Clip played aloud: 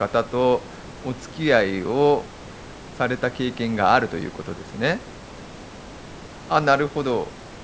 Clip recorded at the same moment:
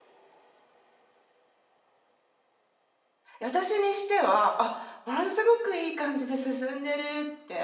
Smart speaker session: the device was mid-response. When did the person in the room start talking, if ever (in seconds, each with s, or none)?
3.4 s